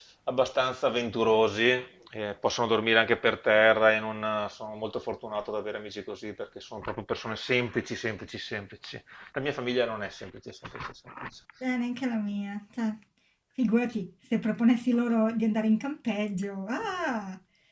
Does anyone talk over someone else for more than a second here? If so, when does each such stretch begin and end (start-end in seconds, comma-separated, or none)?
none